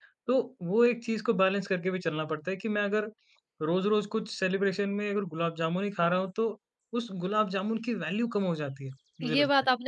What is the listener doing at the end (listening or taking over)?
taking over